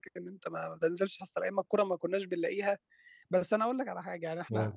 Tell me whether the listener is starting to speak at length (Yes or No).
No